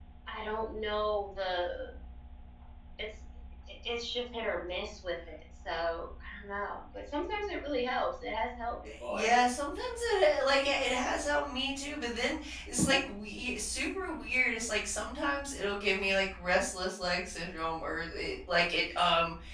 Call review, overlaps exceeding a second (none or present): none